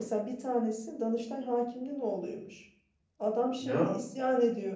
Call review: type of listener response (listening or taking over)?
listening